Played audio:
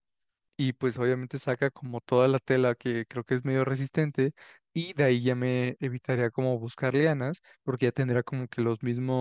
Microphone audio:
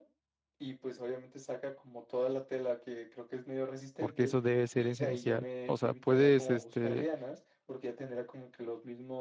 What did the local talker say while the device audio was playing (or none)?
porque eso debe ser esencial. O sea, puedes este,